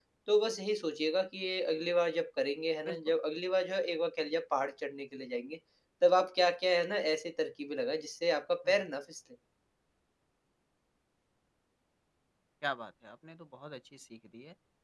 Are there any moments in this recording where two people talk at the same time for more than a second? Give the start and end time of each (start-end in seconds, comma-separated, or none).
none